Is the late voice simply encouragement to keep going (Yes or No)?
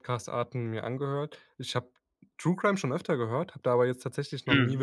Yes